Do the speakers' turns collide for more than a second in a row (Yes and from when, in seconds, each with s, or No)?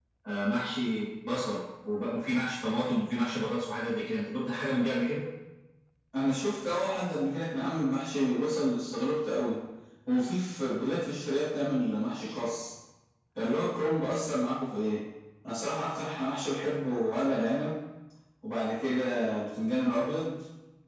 No